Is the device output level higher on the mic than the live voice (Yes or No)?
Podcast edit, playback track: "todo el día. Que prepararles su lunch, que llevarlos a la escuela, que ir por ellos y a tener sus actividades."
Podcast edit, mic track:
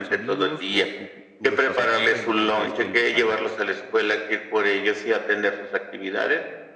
Yes